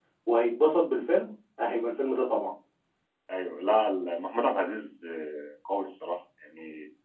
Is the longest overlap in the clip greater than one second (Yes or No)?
No